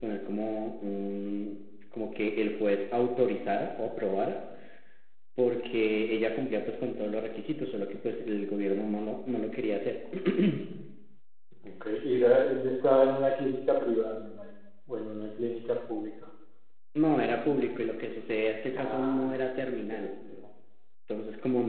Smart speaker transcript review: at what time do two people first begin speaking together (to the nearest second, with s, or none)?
19 s